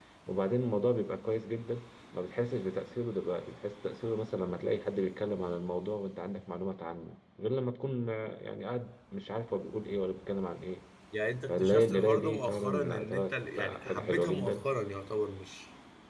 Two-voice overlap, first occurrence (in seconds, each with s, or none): 11.5 s